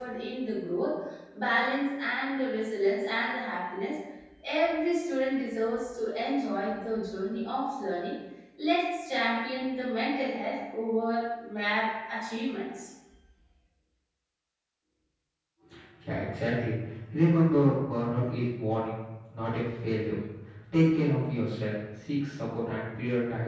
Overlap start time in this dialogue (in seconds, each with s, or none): none